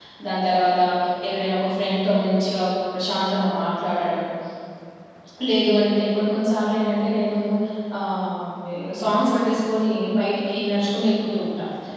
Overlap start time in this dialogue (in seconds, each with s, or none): none